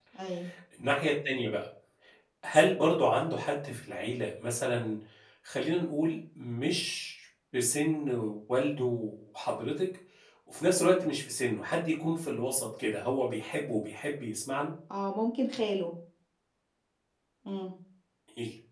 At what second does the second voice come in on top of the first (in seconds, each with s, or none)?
none